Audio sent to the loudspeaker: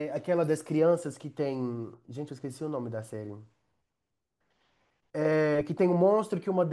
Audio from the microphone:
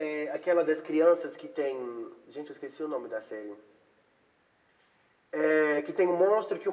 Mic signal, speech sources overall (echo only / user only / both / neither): echo only